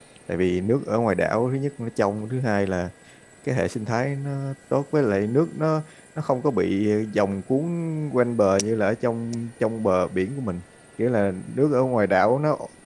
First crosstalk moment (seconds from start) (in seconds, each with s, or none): none